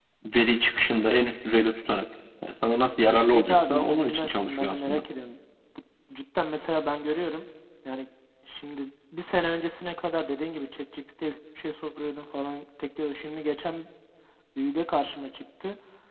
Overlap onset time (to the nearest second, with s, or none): 3 s